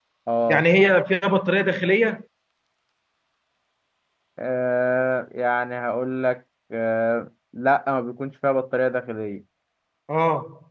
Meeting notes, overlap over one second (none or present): none